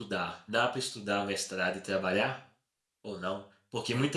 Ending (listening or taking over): listening